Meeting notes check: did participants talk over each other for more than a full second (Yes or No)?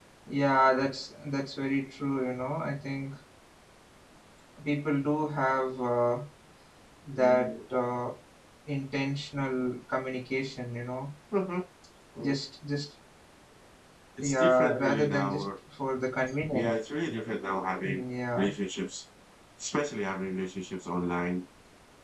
Yes